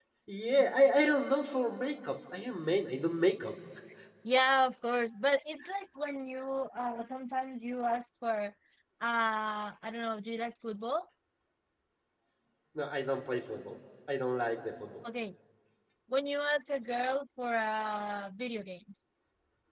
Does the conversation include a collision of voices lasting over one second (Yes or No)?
No